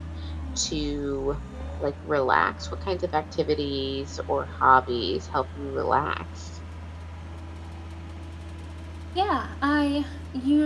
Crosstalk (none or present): none